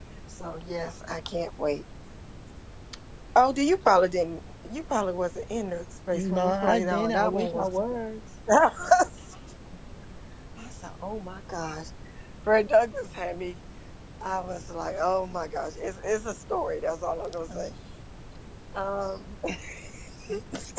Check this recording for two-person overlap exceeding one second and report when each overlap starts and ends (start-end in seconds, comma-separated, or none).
6.1-7.6